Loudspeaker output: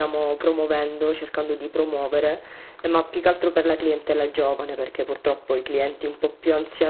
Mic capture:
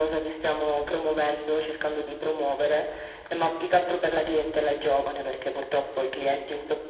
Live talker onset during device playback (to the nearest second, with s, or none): none